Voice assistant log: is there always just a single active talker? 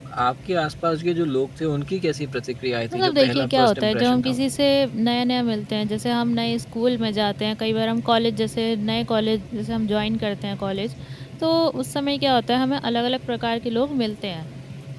No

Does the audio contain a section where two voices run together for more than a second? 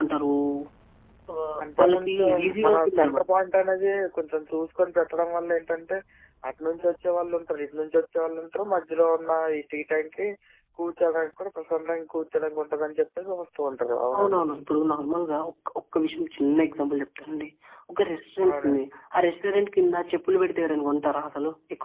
Yes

